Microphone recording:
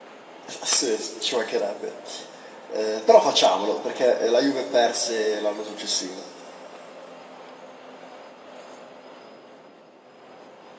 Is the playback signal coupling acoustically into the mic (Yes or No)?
No